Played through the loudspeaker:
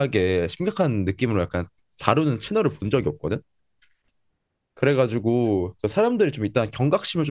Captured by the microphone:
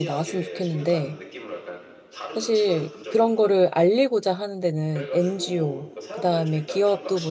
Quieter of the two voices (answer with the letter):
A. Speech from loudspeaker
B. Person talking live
A